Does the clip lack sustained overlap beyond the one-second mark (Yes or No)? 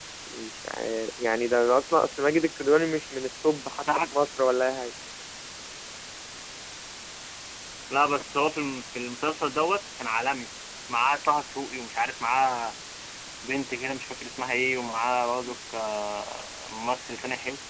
Yes